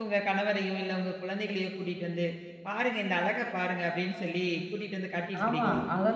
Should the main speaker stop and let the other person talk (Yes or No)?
Yes